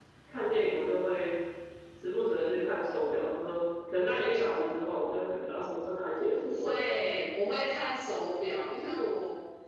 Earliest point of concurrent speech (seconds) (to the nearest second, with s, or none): none